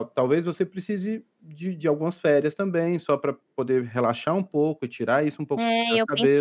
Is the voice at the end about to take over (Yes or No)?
Yes